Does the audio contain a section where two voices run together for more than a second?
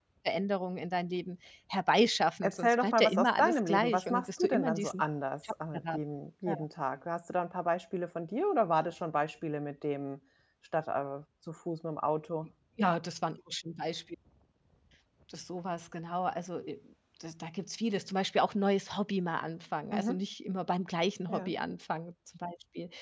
Yes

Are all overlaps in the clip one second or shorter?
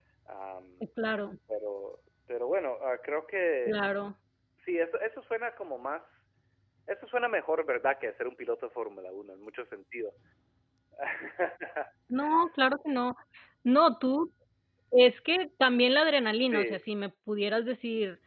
Yes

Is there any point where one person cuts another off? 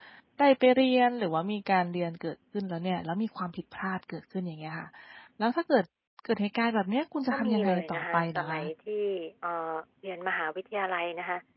Yes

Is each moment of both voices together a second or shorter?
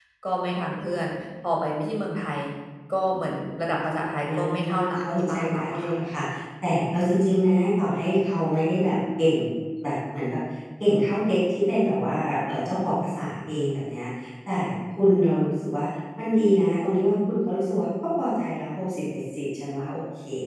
No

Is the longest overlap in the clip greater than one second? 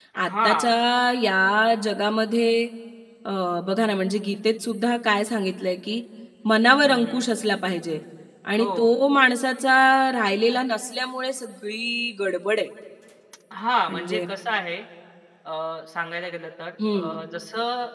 No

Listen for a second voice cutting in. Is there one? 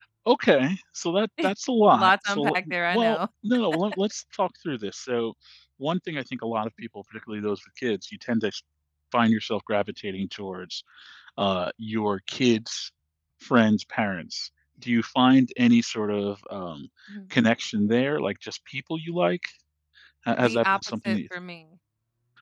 Yes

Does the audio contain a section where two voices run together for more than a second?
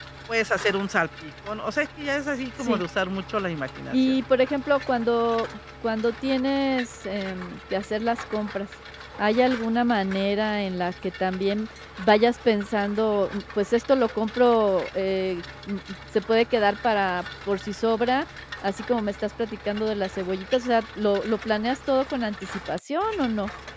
No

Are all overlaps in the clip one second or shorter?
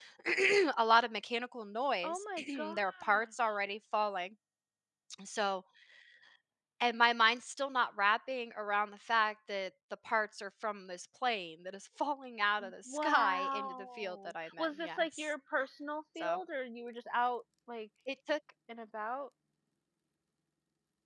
No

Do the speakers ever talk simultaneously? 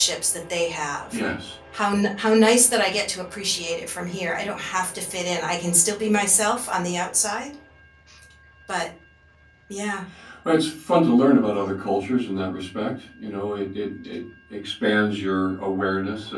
No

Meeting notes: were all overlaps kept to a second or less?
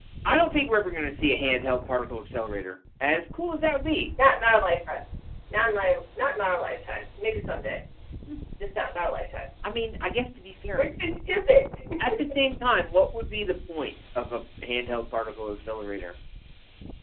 Yes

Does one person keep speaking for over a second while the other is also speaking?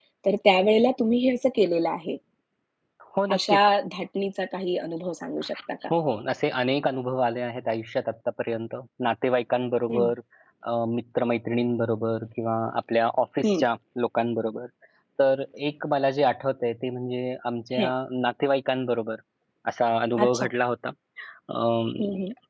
No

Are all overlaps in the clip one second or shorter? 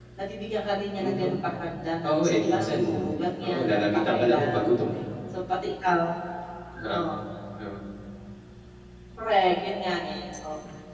No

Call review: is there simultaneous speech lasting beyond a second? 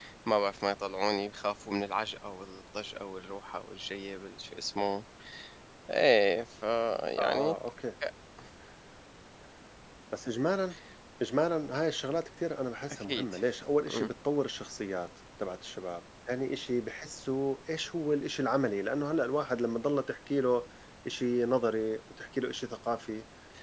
No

